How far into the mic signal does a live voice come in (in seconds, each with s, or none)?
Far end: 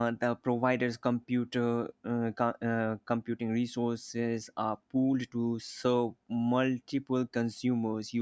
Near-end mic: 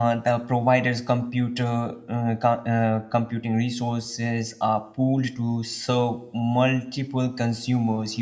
none